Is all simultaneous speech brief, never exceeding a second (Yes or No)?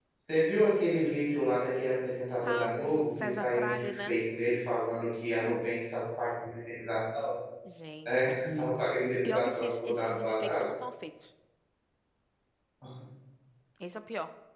No